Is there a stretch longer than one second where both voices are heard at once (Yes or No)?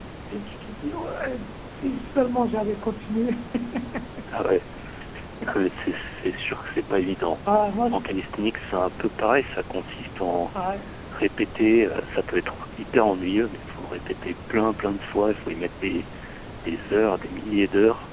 No